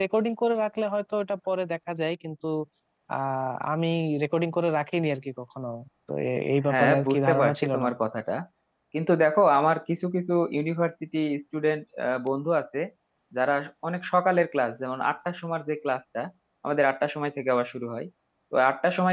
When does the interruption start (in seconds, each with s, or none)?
6.7 s